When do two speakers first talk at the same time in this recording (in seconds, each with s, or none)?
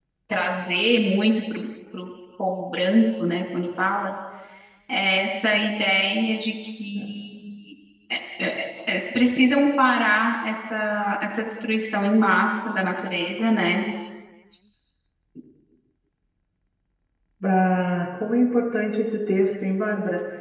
none